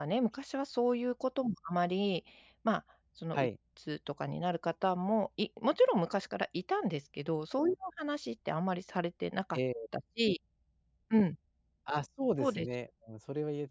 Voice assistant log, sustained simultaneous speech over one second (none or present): none